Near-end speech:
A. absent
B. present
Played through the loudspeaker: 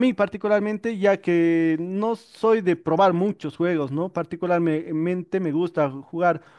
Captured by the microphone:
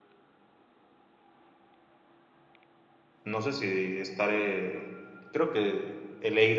B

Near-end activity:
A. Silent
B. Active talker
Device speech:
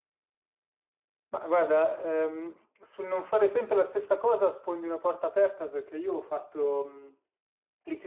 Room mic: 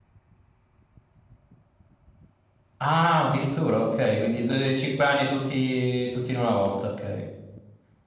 B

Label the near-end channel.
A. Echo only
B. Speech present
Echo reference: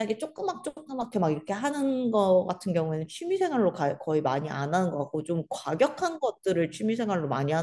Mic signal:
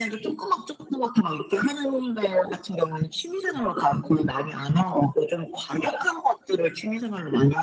A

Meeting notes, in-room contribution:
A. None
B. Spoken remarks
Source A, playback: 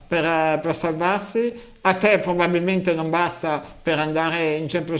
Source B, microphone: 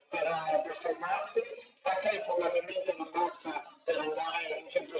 A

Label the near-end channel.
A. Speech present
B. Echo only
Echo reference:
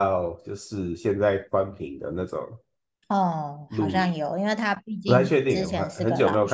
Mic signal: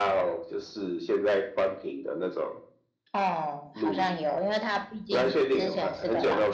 B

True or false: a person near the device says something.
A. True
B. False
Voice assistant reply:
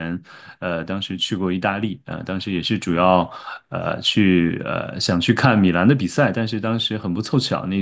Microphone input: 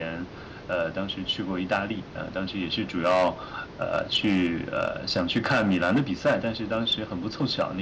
B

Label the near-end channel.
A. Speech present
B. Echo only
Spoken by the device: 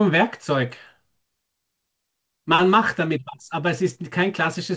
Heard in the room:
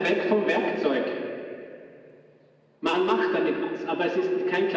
B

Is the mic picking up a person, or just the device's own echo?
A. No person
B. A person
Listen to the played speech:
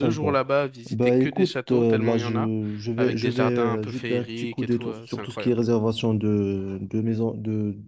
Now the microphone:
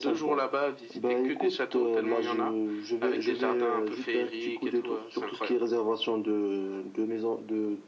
A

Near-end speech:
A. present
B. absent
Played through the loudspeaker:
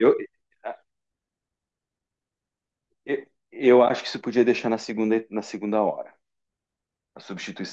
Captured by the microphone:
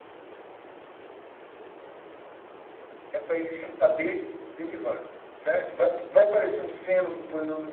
A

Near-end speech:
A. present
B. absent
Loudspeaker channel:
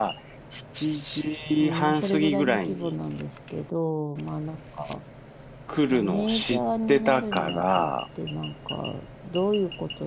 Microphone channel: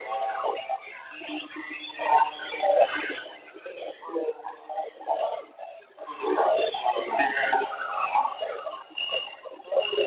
B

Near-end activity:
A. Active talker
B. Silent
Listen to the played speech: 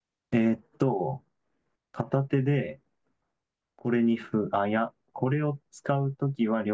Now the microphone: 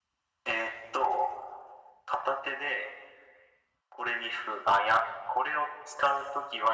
B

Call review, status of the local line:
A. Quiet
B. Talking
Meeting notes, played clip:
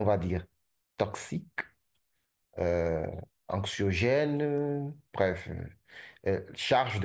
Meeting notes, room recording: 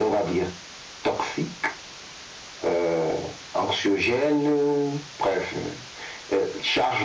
A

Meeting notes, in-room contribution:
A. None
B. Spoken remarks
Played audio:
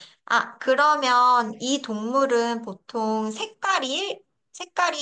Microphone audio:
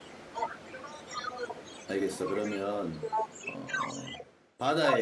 B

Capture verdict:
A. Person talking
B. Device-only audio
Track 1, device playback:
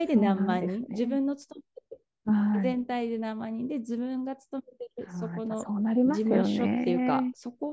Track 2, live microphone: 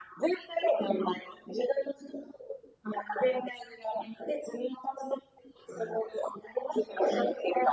B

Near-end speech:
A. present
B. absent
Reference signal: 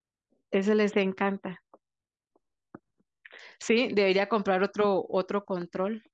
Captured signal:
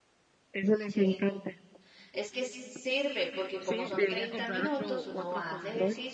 A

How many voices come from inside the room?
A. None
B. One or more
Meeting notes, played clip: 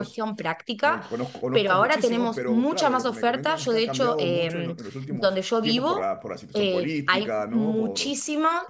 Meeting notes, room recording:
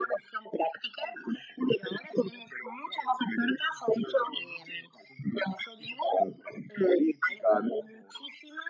A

